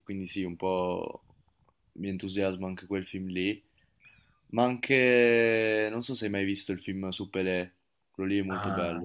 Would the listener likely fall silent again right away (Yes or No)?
No